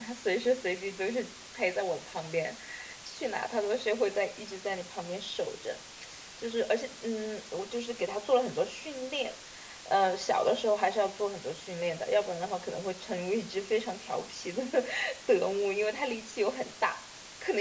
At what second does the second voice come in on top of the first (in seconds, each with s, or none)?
none